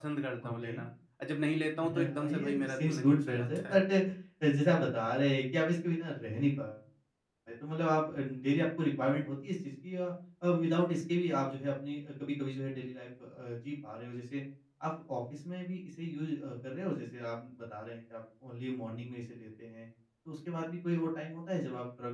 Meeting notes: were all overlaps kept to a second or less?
No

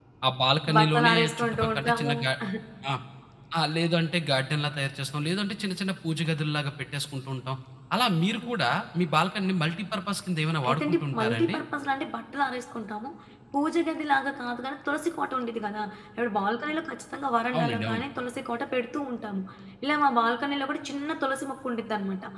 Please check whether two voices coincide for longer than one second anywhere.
Yes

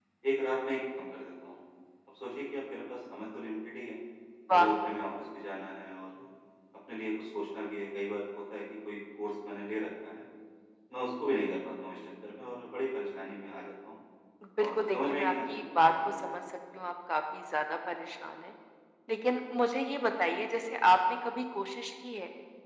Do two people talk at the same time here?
Yes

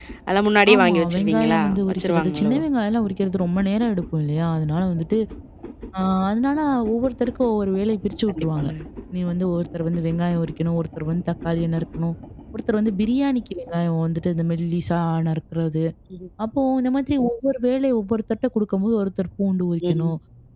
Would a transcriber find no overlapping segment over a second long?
No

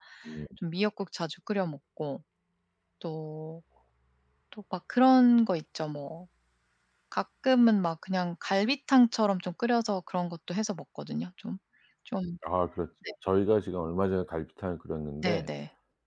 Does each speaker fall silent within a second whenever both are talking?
Yes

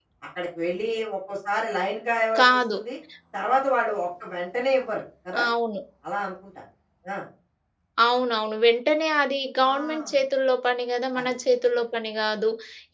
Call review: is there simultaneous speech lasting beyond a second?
No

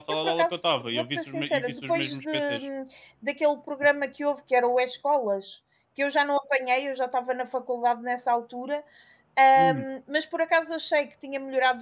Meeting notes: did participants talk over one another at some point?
Yes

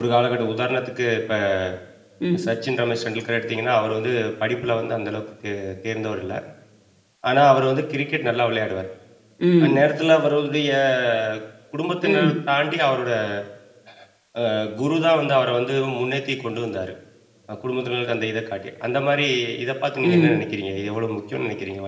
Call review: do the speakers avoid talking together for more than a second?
Yes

